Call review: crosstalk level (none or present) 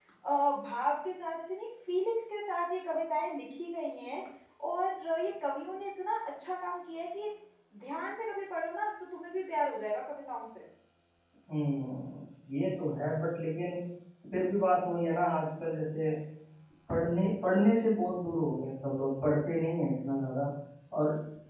none